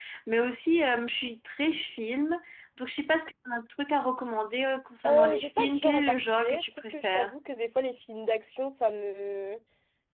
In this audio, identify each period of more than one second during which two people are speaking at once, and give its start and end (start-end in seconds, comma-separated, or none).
5.0-7.3